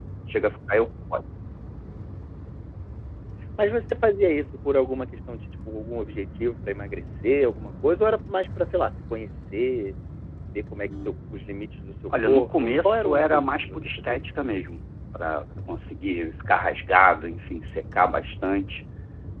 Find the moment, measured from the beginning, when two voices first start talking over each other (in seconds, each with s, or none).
12.1 s